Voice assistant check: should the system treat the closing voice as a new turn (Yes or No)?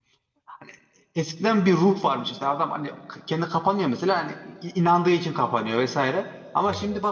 No